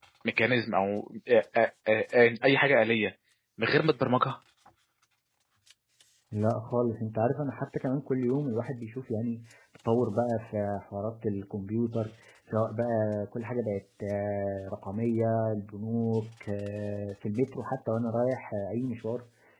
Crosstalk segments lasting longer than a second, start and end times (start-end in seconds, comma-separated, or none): none